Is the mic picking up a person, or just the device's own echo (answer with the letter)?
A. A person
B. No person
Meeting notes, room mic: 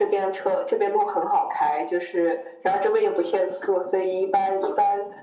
B